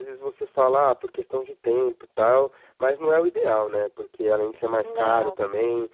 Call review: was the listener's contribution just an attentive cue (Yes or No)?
Yes